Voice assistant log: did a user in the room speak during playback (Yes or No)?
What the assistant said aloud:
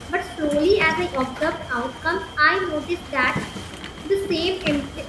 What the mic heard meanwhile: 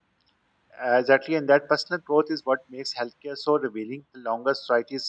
Yes